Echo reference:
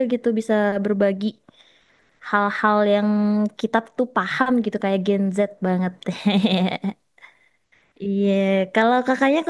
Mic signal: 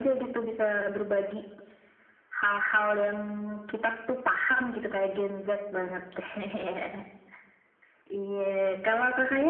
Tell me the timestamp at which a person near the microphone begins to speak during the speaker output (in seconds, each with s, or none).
none